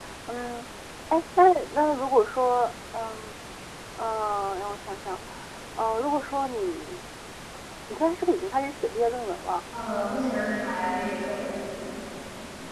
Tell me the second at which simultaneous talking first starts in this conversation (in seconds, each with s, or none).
none